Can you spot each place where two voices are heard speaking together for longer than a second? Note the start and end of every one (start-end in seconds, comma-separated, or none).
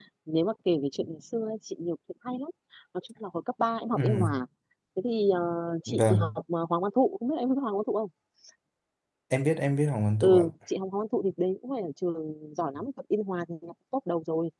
none